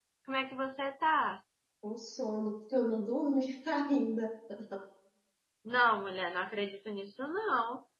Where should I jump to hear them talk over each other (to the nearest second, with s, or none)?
none